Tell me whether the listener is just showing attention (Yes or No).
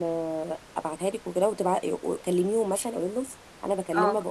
Yes